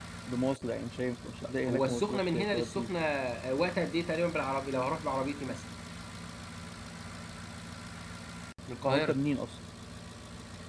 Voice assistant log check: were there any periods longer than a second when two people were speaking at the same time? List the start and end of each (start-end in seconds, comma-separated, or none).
1.6-2.9